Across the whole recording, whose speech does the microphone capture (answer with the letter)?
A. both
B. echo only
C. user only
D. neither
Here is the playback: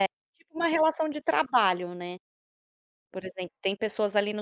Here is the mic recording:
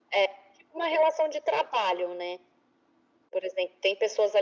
B